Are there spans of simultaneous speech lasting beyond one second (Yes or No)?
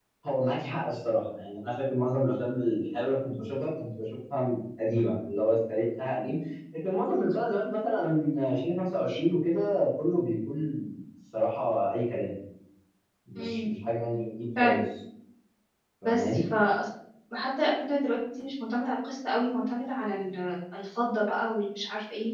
No